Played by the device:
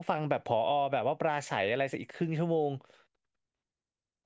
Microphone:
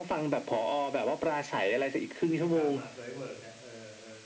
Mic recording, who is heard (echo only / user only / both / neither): both